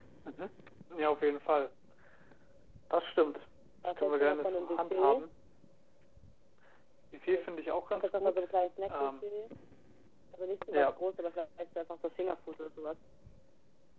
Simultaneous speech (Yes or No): Yes